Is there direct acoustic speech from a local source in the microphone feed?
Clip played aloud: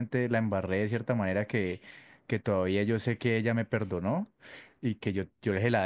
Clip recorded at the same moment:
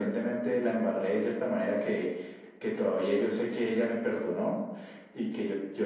No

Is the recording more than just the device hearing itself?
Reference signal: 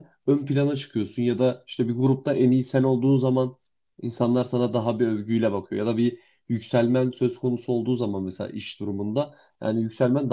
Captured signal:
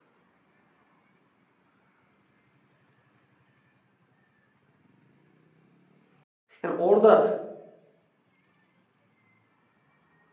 Yes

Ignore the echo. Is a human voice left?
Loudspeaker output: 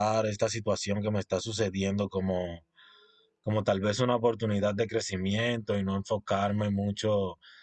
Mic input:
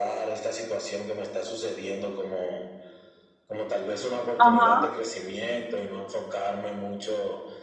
Yes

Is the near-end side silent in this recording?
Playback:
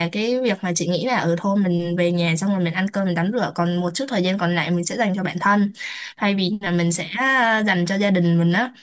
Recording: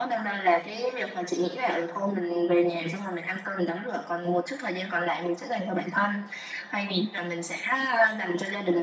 Yes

